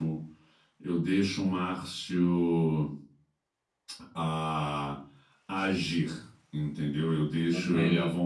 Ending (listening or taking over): listening